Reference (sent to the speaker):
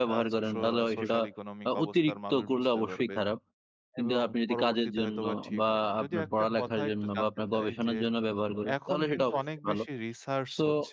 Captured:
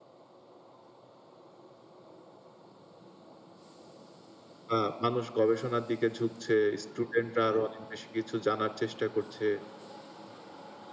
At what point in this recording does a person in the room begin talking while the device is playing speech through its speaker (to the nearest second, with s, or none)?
5 s